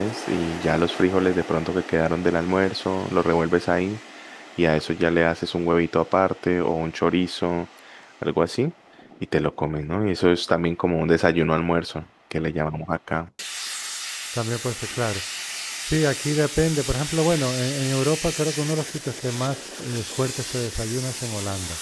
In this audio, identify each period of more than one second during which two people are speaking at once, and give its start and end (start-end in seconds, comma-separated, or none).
none